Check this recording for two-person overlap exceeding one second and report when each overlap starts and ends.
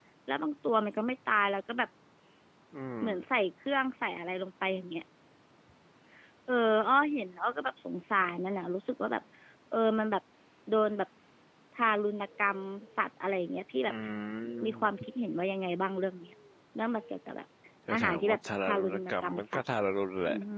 17.9-19.6

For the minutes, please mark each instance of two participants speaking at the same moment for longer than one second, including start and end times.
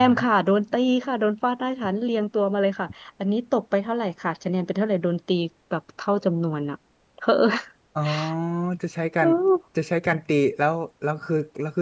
none

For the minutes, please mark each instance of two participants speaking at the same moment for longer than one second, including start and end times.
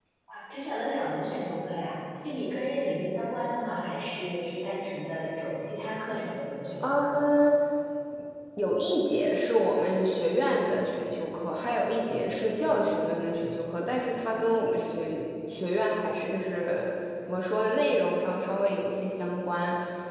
none

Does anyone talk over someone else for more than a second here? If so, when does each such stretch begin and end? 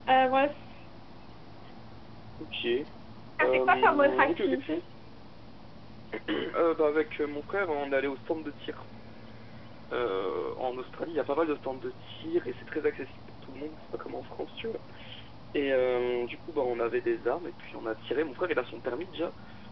3.4-4.8

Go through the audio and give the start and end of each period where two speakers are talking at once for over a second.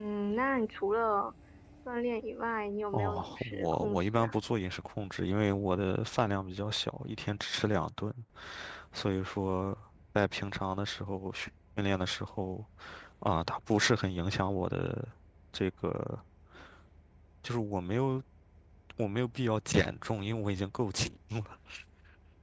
2.9-4.3

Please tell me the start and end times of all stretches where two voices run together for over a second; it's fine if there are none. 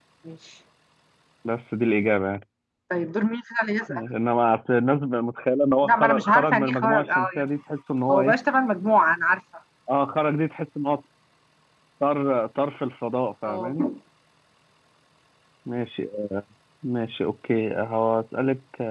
5.8-7.4

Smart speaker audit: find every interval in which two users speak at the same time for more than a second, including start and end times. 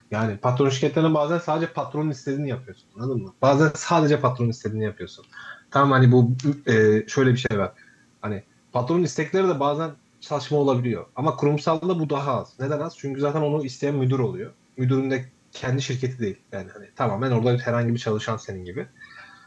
none

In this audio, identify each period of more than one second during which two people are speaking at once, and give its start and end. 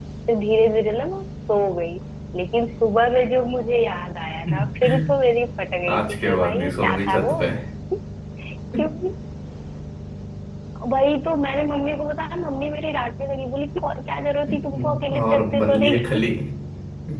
5.9-7.3, 14.5-16.2

